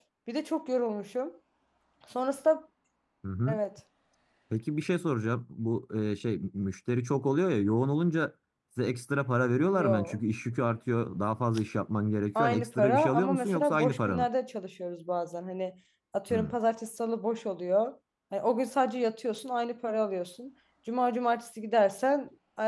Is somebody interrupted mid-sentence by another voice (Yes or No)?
Yes